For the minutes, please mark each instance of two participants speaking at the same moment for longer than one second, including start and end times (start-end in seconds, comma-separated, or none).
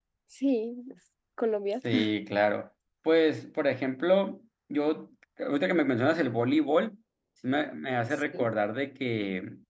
none